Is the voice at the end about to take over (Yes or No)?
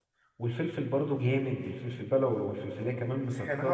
Yes